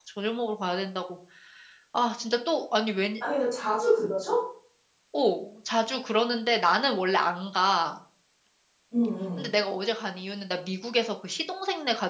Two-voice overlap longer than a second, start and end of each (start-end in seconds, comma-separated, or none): none